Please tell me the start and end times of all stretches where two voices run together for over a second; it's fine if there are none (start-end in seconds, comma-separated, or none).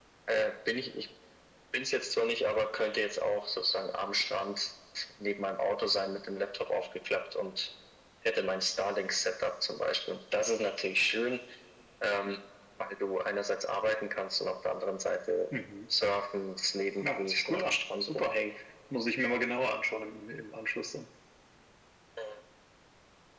17.0-18.4